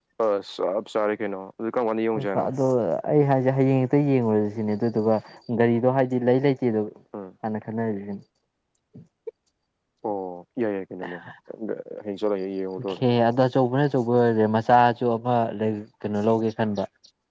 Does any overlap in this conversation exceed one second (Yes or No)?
No